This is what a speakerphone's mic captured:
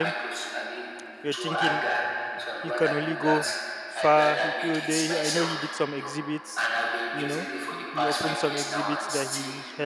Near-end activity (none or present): present